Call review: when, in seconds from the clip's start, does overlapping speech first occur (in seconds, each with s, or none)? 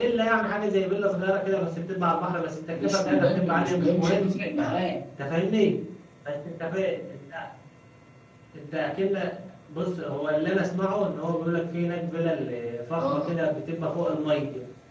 2.8 s